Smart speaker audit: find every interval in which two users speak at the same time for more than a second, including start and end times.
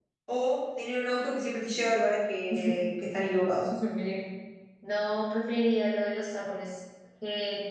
none

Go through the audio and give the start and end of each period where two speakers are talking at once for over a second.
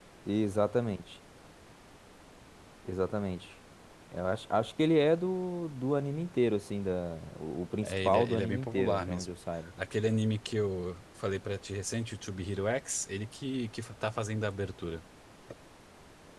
7.8-9.3

